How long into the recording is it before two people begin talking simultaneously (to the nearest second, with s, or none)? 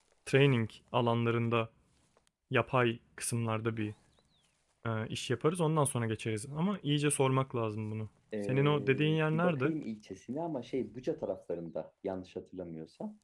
8 s